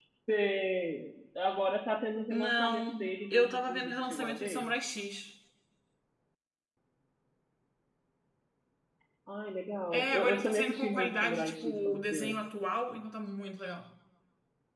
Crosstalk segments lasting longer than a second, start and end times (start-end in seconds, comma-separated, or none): 2.3-4.7, 9.9-12.4